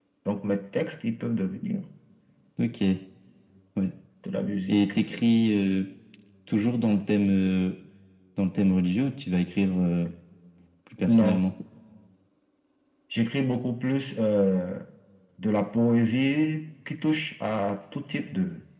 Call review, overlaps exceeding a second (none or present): none